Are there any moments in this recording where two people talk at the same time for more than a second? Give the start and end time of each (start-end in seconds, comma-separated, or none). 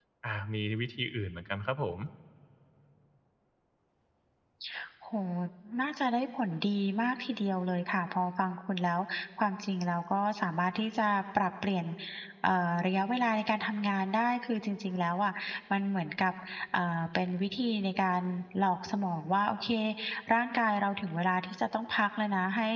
none